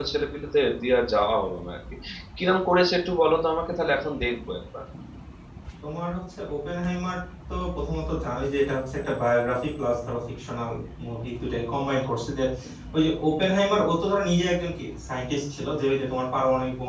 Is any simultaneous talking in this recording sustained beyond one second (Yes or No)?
No